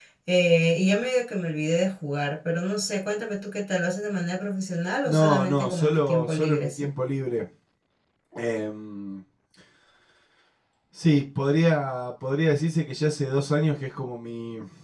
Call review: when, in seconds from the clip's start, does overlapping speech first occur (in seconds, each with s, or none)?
5.0 s